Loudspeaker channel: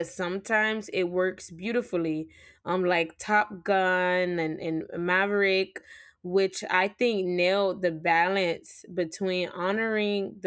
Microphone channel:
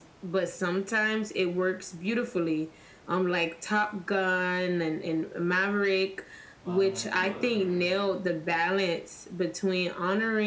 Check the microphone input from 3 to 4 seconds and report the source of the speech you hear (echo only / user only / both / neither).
echo only